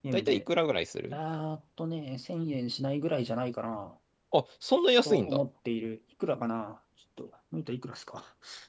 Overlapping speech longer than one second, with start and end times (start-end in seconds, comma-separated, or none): none